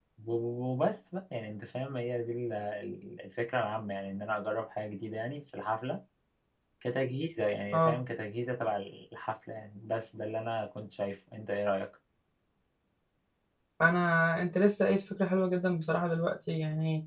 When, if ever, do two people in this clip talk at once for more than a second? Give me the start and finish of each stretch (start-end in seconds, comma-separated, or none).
none